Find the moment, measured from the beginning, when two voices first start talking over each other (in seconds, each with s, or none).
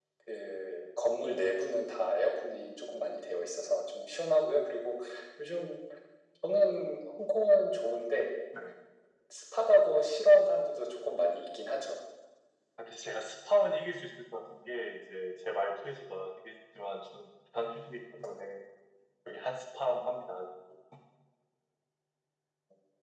none